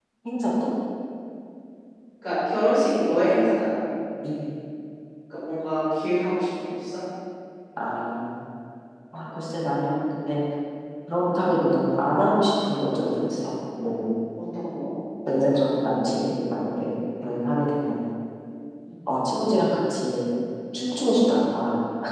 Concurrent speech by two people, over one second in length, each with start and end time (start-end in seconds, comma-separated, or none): none